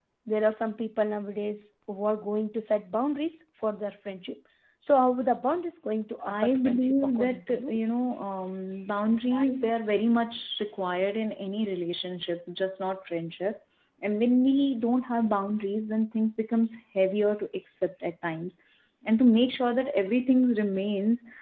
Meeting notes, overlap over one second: present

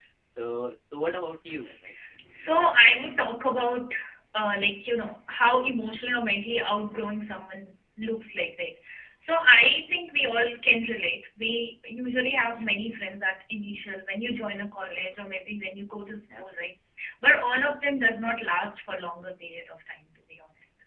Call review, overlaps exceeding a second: none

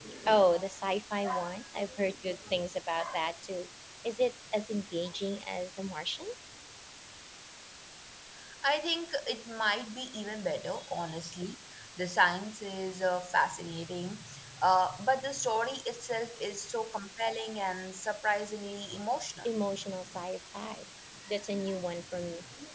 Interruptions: none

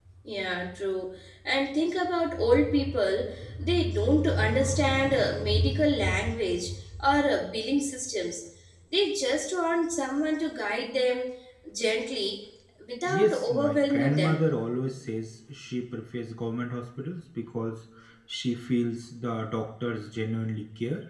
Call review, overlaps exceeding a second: present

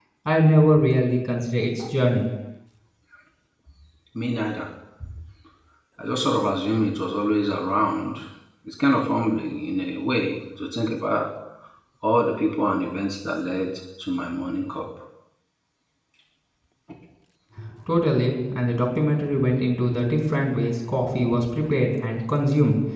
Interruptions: none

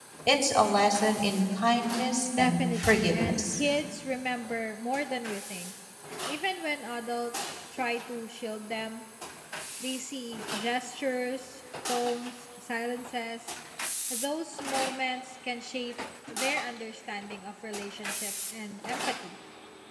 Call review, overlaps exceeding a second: present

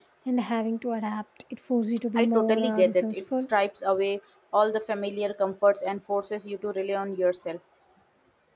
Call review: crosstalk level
present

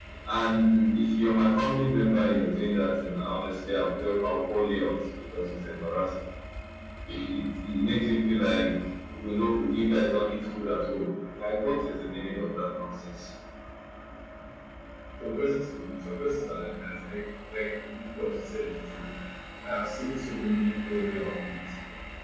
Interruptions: none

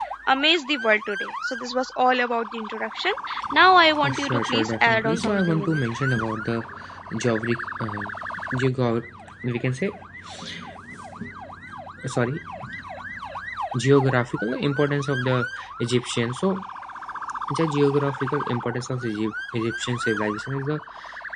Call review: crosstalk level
present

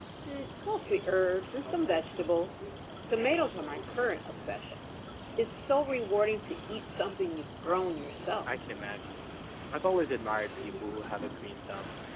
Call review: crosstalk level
none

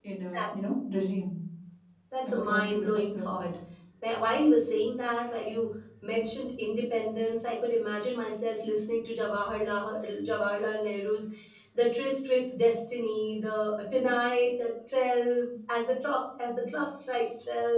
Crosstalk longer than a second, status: present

